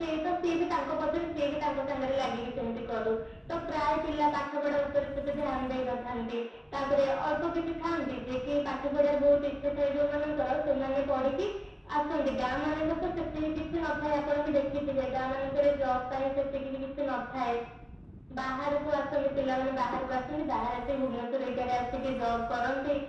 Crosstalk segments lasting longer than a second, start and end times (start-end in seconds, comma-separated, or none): none